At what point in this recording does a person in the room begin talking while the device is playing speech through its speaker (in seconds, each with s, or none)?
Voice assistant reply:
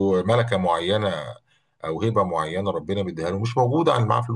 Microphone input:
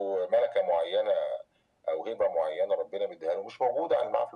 none